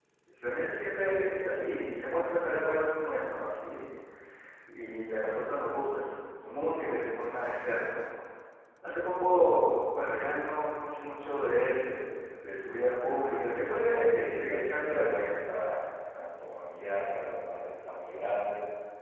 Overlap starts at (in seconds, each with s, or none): 13.8 s